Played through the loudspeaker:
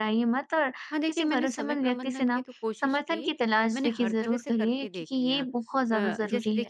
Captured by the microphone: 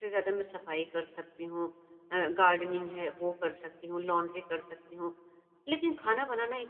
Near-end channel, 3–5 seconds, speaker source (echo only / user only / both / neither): user only